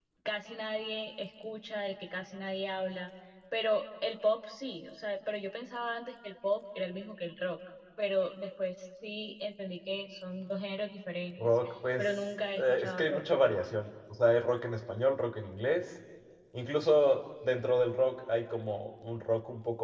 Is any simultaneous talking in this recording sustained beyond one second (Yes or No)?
Yes